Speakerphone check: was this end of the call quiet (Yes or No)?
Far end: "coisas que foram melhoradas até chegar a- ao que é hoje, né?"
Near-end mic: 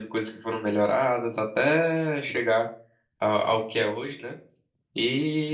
Yes